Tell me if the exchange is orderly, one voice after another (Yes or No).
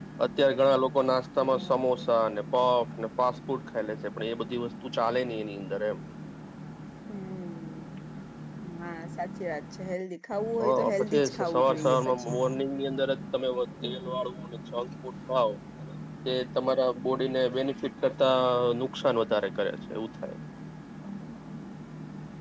No